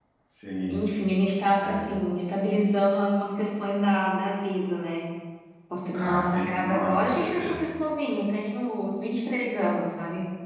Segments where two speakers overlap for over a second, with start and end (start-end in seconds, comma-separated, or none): 5.9-7.7